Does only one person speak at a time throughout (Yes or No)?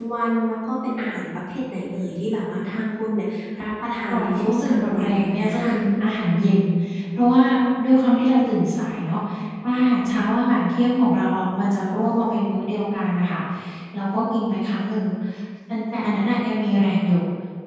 No